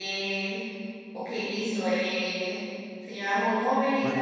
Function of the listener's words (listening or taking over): listening